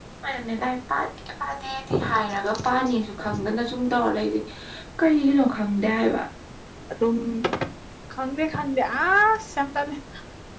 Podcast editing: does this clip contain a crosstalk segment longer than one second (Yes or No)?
No